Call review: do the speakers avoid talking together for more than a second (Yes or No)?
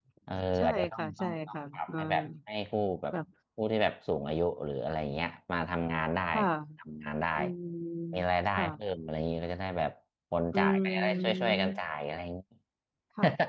No